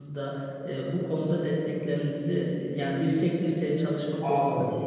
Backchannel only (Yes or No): No